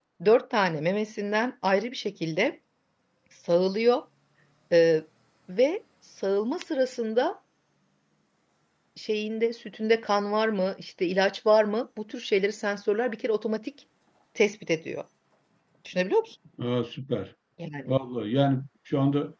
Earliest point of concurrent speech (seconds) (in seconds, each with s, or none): none